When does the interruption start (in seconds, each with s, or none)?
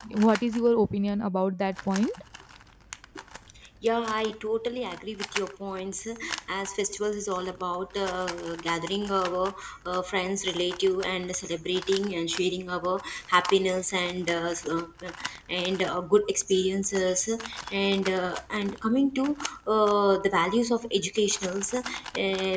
none